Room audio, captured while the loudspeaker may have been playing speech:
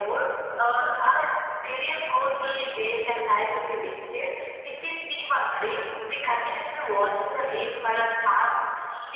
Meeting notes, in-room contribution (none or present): none